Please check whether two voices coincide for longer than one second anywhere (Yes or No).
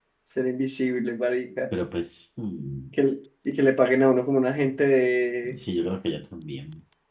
No